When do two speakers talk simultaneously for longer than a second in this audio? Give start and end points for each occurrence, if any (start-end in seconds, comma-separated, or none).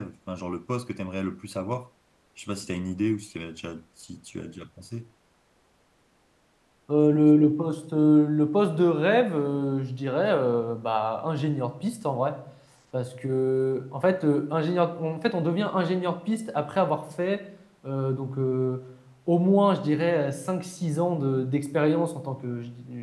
none